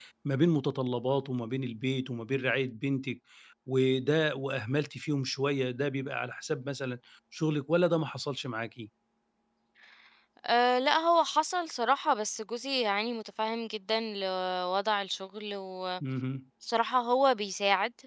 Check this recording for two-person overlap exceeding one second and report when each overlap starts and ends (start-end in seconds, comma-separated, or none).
none